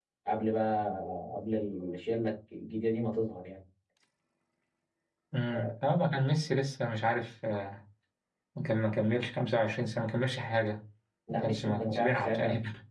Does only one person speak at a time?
No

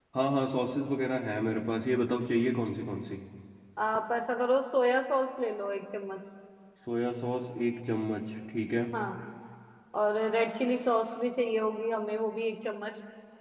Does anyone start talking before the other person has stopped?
No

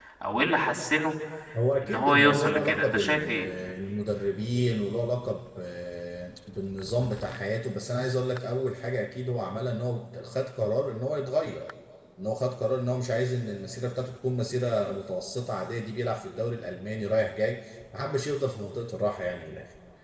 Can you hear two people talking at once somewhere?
Yes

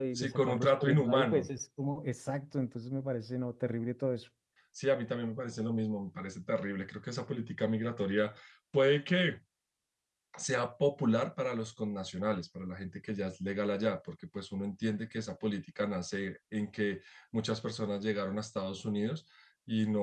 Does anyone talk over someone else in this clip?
Yes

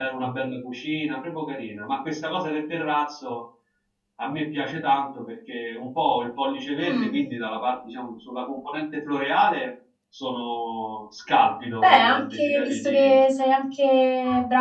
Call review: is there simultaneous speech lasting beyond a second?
Yes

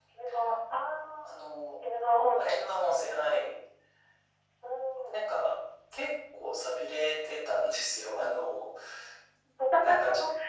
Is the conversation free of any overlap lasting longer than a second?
Yes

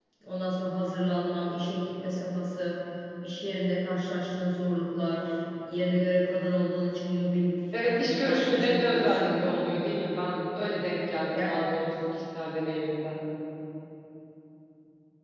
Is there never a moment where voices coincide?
No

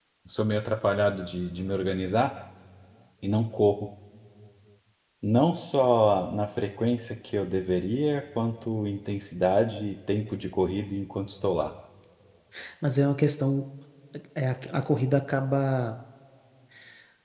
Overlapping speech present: No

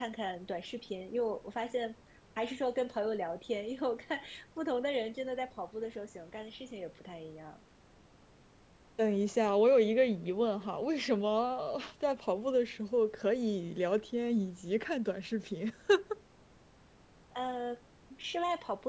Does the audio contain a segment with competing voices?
No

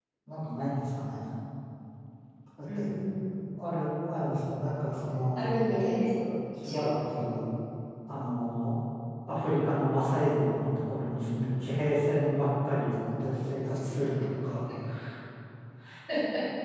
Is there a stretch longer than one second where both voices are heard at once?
No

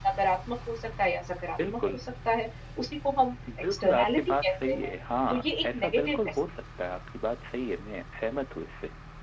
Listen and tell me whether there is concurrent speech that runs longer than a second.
Yes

